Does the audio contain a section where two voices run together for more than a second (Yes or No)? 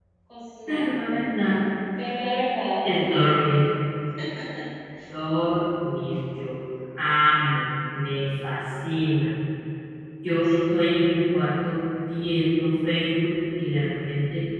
No